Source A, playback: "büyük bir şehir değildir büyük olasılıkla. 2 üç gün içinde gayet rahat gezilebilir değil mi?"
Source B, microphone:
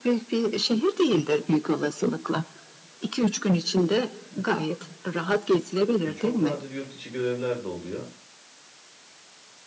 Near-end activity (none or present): present